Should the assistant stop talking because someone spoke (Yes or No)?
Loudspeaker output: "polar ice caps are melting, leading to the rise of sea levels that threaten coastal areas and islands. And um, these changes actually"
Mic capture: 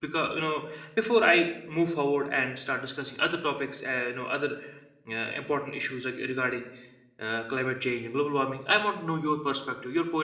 Yes